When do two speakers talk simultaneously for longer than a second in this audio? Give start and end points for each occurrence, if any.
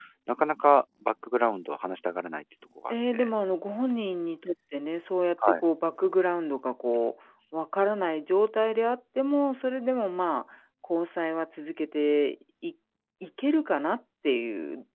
none

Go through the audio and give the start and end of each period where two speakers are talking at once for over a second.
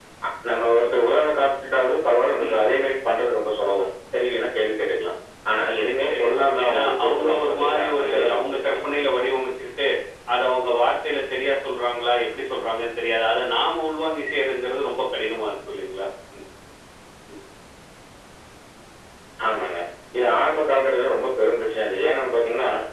6.0-8.8

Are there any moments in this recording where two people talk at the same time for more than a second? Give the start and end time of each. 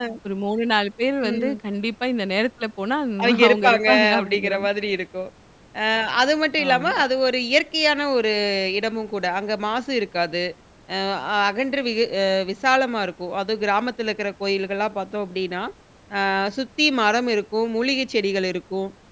3.2-4.7

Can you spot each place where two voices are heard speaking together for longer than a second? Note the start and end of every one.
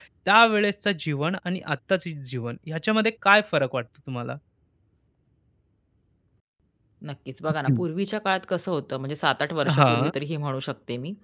none

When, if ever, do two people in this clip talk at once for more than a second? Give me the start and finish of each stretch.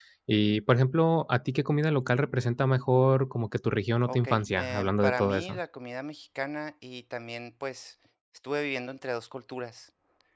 4.1-5.6

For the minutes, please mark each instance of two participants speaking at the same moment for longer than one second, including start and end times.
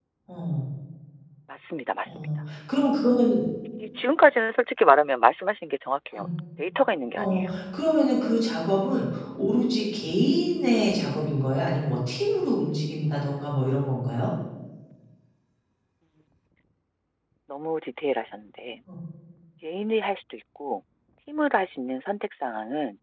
none

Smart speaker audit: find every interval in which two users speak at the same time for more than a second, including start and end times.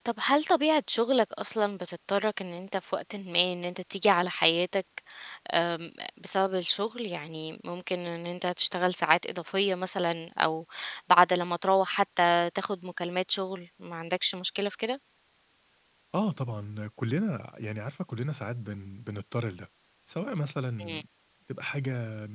none

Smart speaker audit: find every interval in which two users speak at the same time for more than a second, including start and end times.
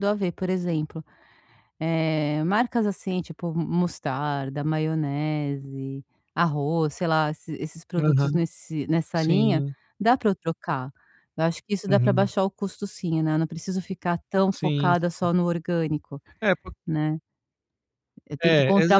none

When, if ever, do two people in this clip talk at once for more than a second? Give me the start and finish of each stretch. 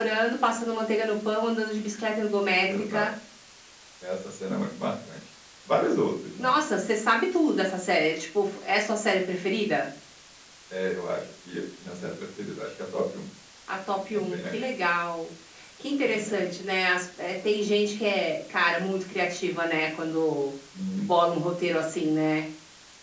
none

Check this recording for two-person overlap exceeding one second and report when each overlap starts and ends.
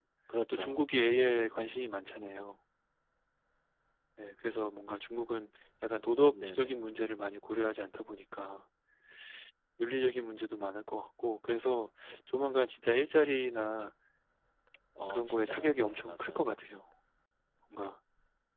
15.1-16.5

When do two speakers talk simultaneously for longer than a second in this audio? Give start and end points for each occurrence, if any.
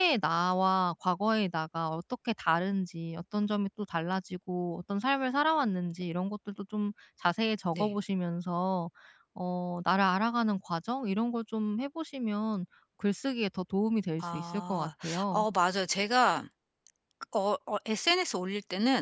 14.2-15.4

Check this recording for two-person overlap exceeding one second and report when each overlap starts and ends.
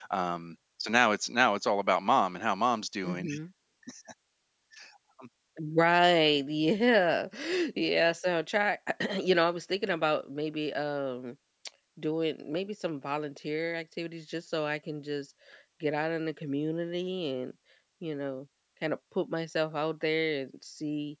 none

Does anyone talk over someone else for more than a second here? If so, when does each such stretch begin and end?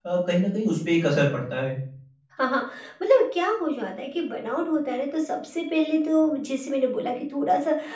none

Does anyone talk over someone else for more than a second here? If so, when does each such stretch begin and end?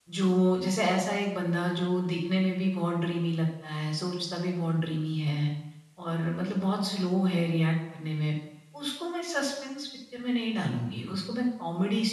none

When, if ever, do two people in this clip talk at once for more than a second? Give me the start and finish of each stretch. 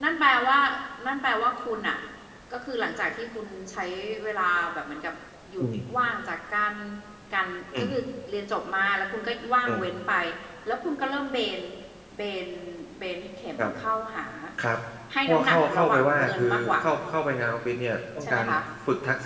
15.3-16.8

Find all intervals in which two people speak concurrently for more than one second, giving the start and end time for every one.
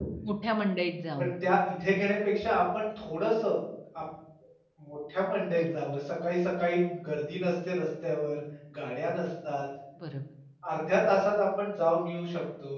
none

